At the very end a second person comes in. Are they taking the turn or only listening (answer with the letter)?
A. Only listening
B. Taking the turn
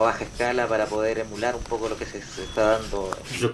B